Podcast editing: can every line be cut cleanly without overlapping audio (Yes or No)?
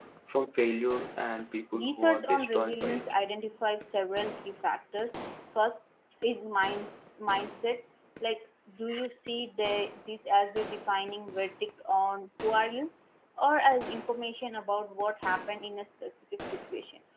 No